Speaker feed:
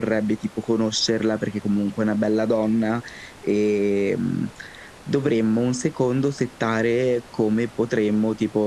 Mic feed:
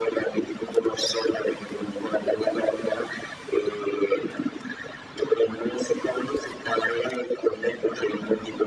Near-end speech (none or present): none